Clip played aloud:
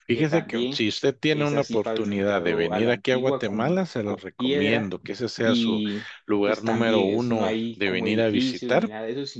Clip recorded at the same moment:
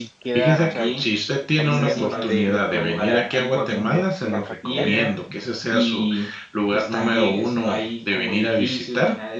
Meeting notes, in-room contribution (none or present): present